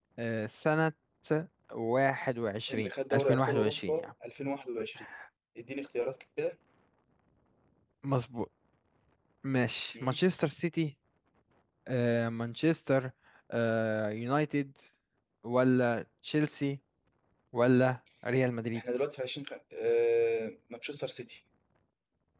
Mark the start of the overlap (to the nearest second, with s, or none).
3 s